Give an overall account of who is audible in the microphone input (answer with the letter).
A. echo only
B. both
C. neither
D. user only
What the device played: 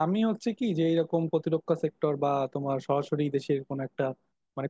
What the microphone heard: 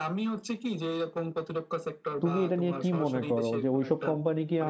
B